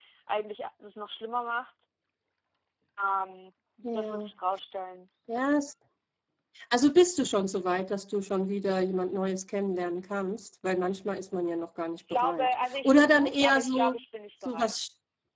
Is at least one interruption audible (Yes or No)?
Yes